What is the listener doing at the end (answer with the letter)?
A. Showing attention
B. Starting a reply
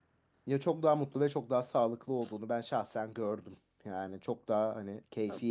A